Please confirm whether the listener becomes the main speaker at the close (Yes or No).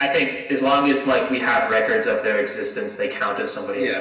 Yes